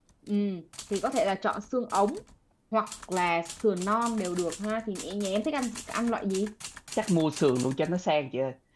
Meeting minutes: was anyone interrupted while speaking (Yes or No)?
No